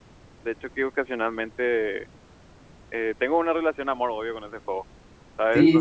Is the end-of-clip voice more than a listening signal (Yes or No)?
Yes